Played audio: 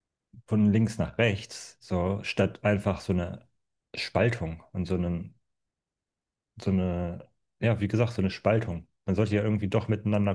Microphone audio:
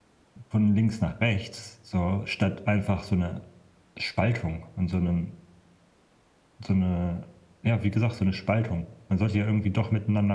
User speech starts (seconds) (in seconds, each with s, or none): none